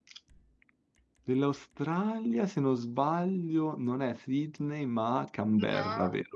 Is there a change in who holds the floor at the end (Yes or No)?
Yes